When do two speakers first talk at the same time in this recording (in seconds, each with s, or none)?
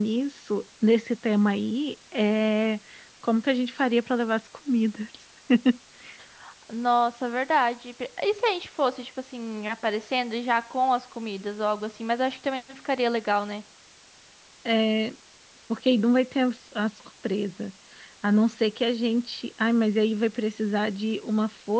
none